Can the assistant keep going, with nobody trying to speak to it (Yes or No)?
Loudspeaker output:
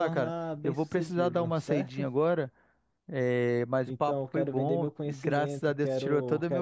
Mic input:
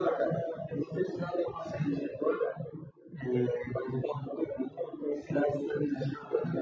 Yes